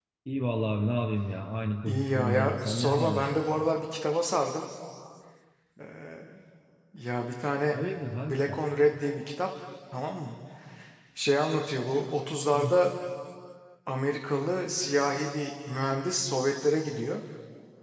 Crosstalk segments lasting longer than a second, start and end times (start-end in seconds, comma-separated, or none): 1.9-3.3